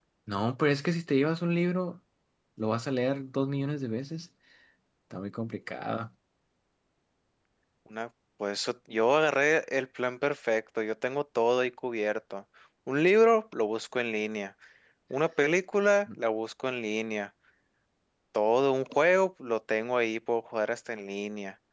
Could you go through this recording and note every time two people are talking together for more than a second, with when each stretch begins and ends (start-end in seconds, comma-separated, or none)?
none